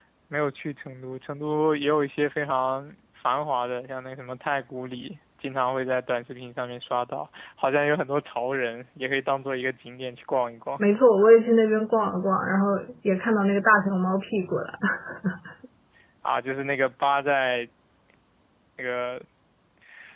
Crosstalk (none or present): none